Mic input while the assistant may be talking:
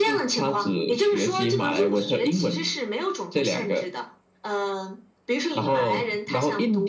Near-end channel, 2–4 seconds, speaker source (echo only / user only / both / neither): echo only